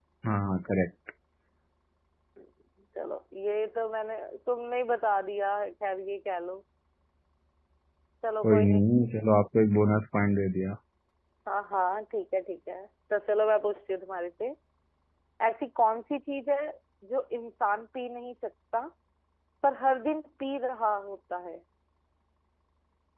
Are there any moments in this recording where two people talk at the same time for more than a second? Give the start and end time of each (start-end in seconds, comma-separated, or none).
none